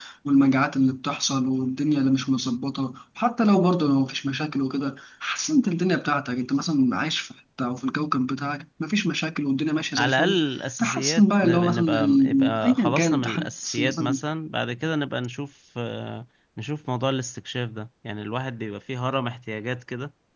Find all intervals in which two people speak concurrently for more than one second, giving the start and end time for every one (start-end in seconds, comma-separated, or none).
10.8-14.2